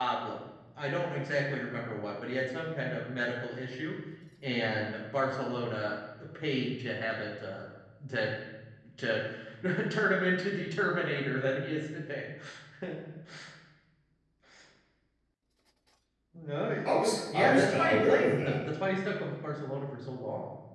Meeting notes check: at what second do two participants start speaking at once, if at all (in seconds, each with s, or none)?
17.3 s